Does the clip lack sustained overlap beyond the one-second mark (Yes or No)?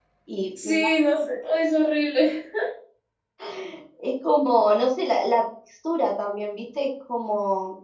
Yes